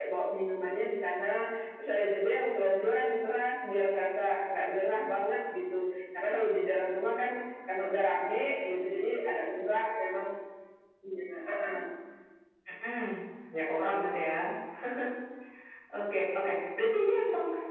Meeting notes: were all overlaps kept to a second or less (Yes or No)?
Yes